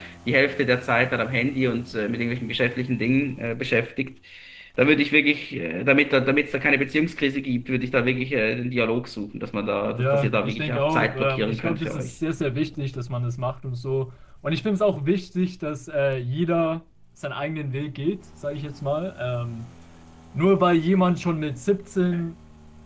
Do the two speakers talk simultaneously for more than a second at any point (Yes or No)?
Yes